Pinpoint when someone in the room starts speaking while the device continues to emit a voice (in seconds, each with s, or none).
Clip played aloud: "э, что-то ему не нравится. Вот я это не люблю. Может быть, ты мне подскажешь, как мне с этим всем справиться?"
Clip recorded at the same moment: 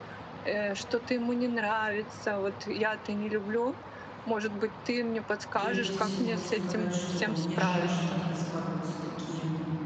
5.5 s